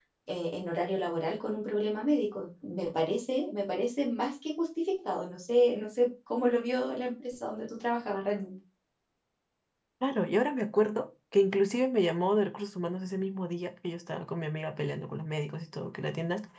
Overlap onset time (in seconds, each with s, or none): none